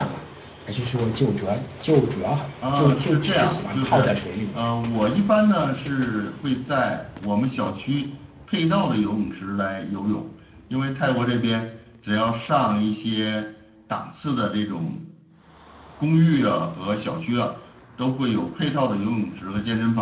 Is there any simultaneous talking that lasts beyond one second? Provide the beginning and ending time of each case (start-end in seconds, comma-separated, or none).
2.7-4.1